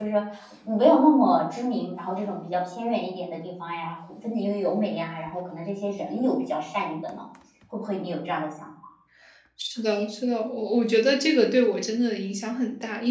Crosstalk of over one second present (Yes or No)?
No